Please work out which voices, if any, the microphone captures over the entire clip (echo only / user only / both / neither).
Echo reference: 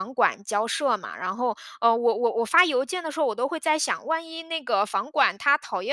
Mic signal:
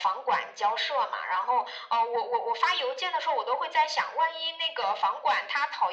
echo only